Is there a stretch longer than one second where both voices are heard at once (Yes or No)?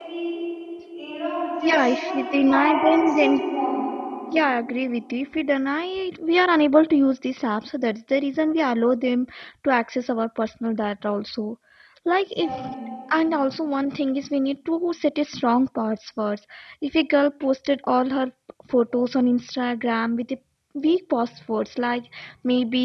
Yes